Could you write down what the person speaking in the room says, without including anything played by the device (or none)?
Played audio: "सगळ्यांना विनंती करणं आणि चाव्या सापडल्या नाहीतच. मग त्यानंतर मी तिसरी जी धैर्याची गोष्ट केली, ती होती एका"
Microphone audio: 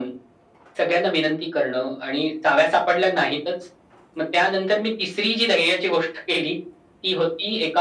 none